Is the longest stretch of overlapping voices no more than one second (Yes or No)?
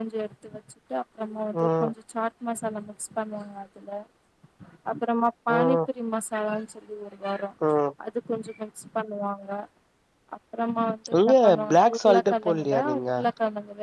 No